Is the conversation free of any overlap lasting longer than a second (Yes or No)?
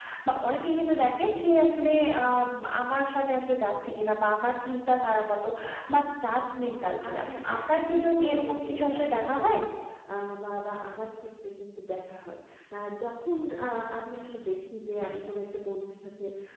No